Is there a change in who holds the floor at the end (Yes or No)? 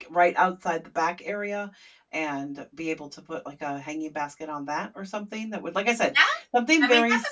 Yes